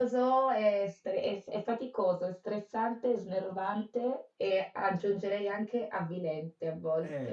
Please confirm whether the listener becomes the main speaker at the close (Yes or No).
Yes